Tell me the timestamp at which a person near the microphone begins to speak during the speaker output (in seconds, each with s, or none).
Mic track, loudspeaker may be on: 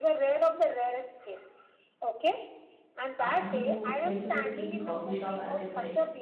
3.2 s